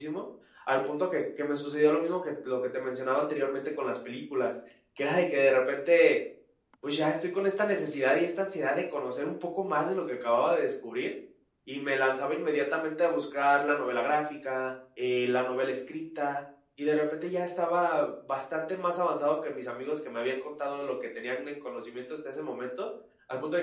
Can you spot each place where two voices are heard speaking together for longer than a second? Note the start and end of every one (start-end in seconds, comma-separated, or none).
none